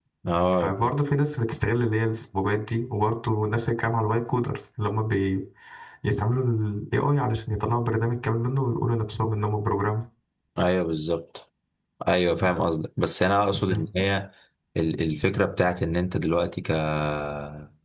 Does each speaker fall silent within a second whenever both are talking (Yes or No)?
Yes